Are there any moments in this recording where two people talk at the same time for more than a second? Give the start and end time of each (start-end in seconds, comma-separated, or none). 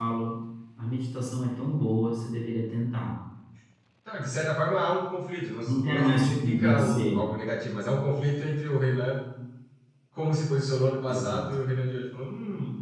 5.7-7.2